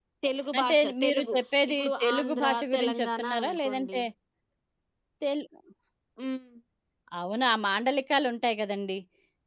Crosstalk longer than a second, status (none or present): present